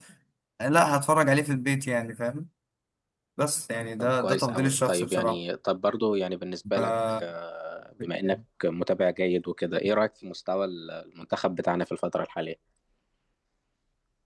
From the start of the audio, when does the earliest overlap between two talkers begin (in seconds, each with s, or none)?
4.0 s